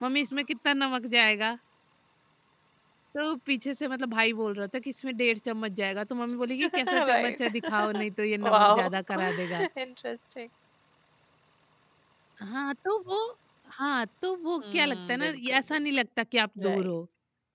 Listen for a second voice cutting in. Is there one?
Yes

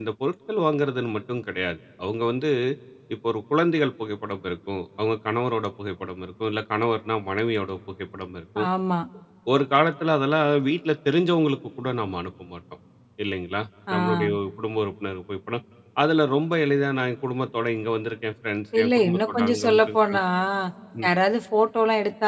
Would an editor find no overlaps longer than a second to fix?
No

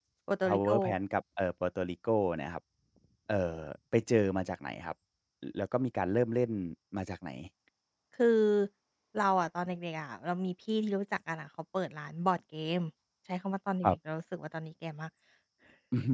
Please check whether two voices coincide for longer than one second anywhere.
No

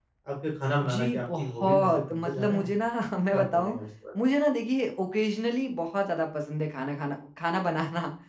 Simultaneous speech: Yes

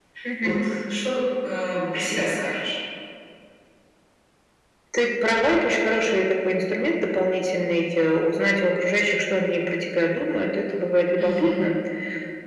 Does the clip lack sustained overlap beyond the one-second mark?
Yes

